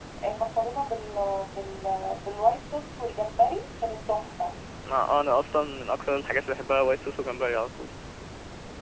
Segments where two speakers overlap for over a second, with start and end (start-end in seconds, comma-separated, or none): none